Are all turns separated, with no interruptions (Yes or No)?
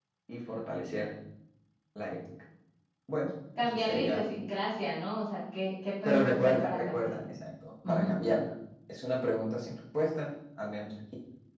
No